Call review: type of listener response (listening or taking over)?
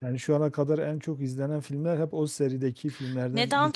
taking over